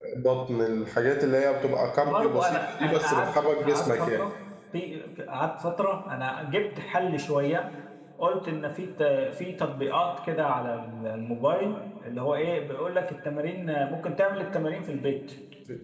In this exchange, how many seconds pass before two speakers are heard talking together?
2.0 s

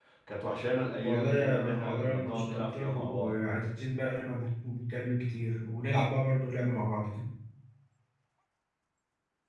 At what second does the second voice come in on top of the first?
1.0 s

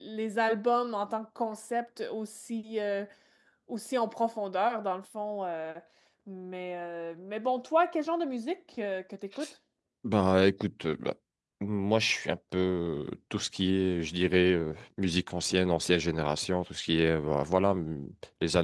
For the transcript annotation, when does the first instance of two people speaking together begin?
none

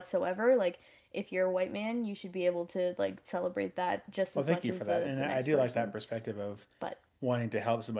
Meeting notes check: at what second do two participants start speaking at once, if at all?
4.4 s

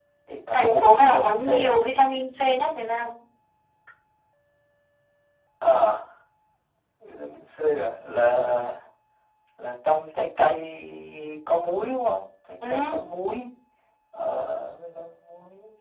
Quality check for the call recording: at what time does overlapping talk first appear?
0.5 s

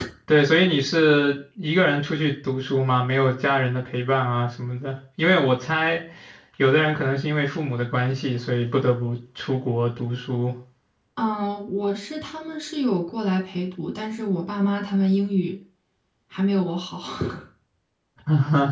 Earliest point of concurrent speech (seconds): none

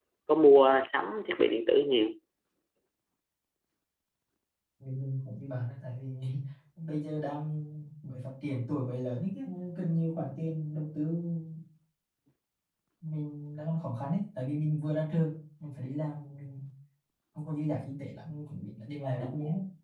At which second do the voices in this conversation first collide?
none

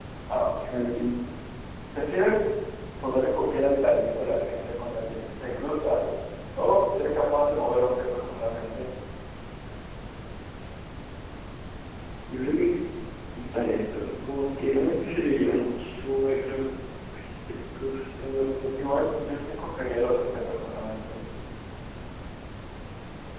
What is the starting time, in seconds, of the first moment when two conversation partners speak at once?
none

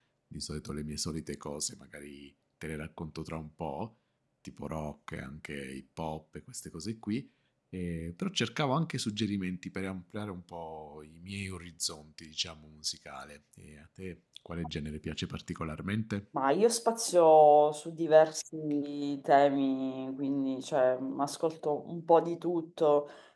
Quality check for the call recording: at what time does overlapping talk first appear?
none

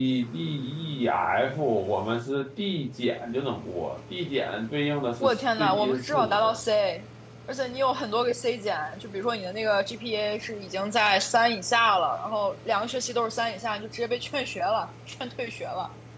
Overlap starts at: 5.2 s

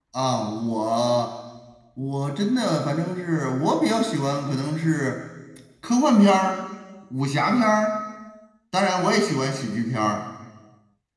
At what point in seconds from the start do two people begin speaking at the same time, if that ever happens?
none

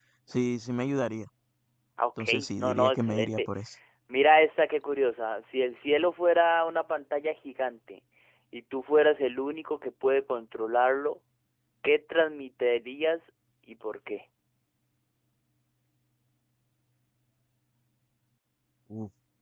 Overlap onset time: 2.2 s

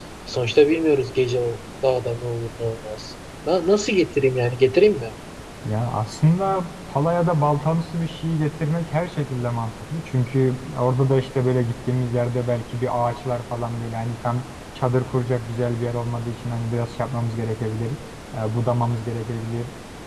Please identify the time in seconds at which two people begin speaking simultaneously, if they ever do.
none

